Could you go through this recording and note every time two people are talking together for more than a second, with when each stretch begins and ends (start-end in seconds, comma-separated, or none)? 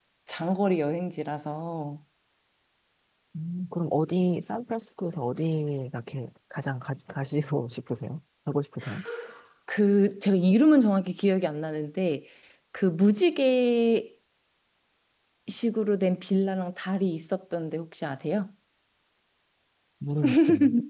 none